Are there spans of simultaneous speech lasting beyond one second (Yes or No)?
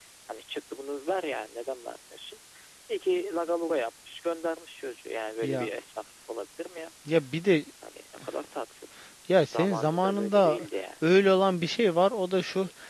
Yes